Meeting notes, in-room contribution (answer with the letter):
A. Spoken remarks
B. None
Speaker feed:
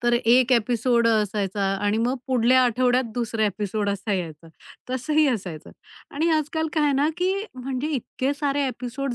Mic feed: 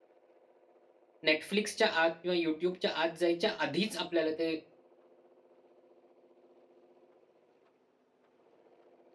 A